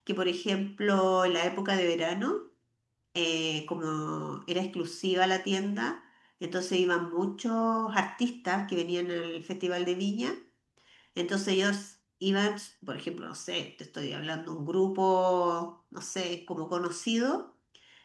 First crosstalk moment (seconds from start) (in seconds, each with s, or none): none